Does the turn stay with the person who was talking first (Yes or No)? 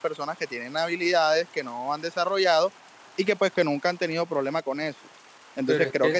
No